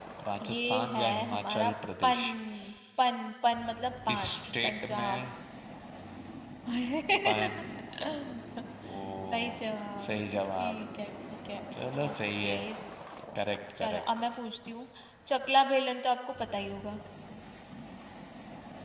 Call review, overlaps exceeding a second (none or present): present